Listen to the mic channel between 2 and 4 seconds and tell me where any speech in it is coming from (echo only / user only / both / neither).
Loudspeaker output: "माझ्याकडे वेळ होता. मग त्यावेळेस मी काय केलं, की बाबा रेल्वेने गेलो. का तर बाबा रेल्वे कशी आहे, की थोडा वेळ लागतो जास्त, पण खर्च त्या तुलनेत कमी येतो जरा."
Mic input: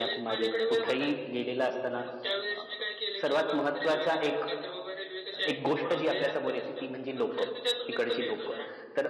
both